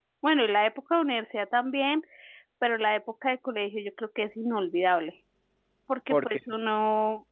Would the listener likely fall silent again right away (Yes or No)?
Yes